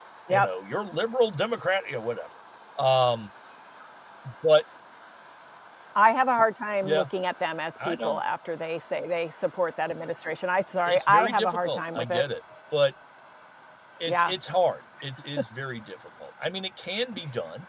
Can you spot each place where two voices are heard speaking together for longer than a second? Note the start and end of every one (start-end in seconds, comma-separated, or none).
10.9-12.2